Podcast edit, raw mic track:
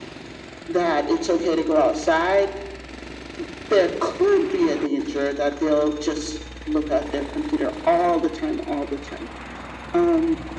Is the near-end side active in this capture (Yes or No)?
No